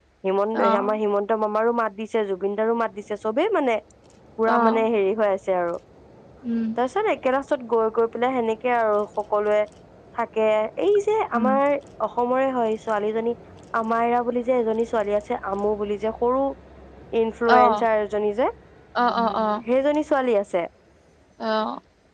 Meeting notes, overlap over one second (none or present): none